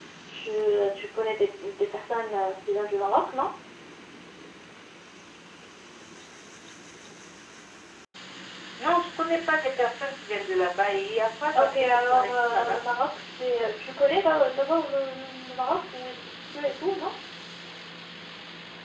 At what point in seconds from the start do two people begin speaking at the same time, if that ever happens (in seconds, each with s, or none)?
11.6 s